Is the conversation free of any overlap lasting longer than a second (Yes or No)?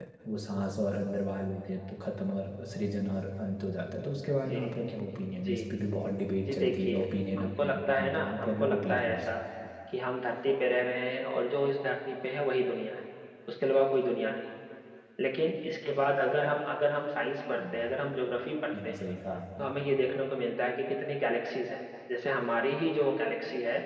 No